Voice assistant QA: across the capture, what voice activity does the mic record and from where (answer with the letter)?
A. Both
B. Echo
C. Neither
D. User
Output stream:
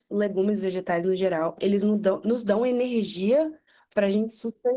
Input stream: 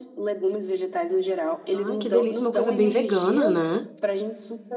A